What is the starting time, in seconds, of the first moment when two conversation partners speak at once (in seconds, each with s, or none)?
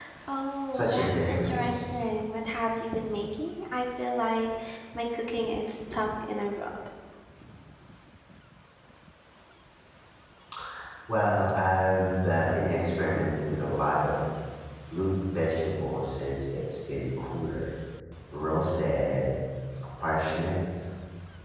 0.7 s